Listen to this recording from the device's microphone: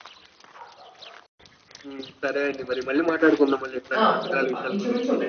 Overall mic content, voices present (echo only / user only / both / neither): both